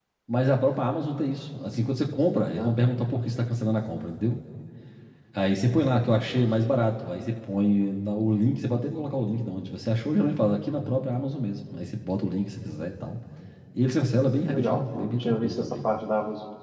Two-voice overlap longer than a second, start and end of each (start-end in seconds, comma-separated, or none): 14.4-15.9